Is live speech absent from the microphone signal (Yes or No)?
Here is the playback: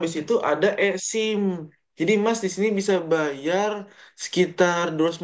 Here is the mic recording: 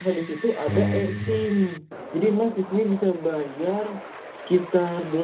No